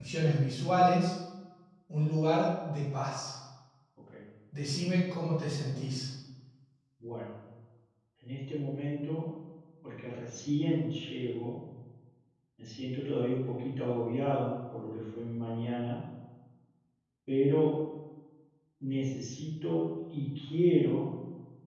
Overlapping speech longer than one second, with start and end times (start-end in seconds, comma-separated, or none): none